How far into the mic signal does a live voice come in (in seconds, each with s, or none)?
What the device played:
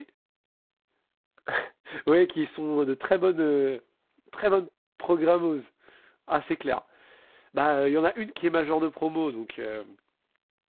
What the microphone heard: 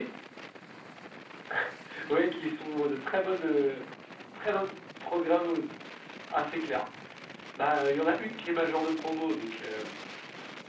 none